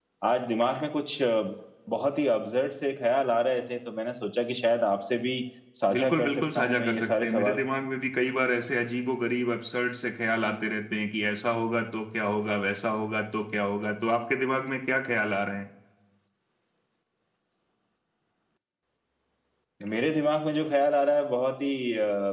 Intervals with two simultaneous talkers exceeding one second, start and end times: 5.9-7.6

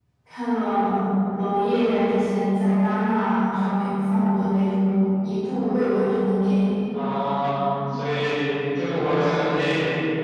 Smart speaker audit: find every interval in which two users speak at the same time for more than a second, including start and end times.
none

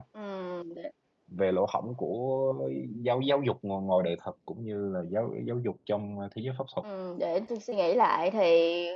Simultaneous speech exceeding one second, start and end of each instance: none

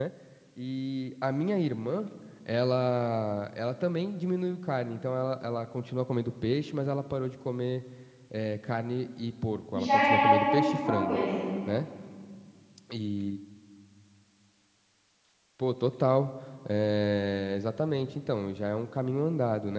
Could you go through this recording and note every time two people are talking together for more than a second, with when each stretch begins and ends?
9.8-11.2

